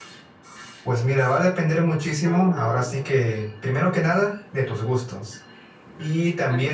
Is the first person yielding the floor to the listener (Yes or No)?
No